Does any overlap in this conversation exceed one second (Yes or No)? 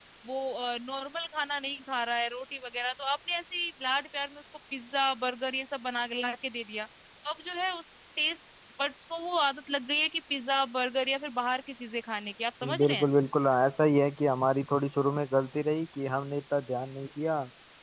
No